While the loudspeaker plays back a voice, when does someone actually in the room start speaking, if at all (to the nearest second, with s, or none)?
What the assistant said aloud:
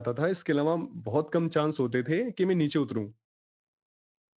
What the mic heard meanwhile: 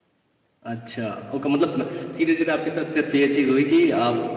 1 s